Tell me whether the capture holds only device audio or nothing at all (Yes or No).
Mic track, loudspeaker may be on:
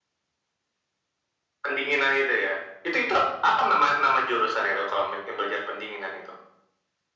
Yes